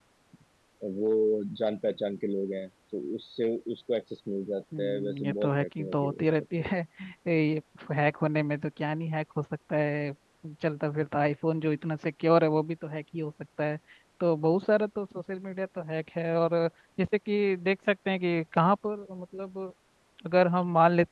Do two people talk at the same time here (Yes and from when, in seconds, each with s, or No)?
Yes, from 4.7 s